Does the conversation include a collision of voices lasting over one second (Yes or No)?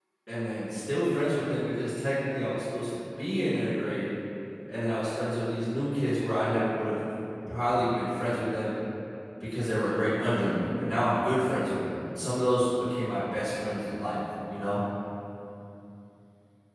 No